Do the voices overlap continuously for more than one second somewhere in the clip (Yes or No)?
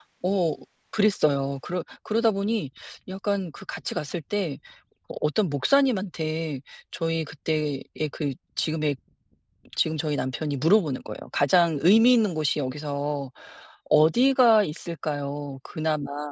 No